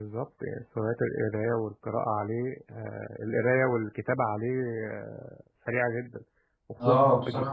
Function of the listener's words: taking over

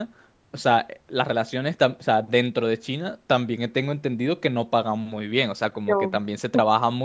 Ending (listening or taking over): listening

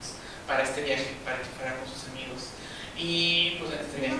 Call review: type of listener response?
taking over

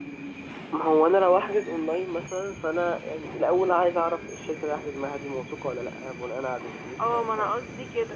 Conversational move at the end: taking over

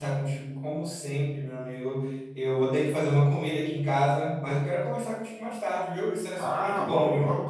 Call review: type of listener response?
taking over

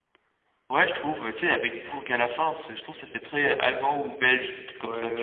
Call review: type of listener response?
taking over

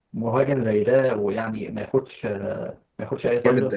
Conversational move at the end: taking over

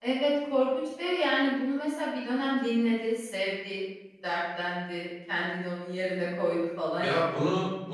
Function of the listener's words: taking over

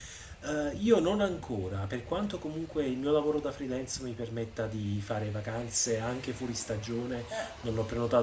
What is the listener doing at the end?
listening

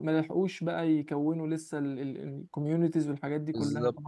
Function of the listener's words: taking over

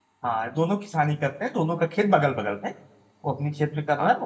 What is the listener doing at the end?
listening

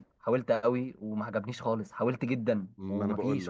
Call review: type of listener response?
taking over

